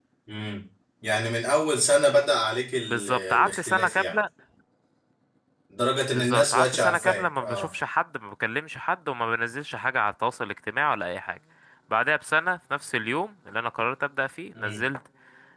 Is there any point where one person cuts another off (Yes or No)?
Yes